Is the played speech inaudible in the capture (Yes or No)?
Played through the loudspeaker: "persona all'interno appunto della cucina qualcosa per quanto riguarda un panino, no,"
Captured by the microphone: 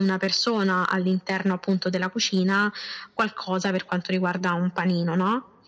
No